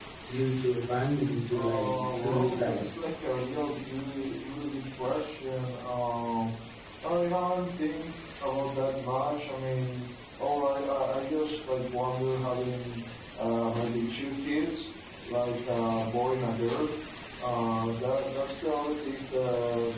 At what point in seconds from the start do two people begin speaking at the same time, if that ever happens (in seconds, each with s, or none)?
1.5 s